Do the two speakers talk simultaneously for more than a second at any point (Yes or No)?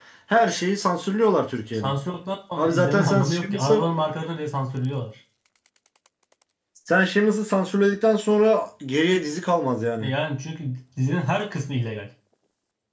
Yes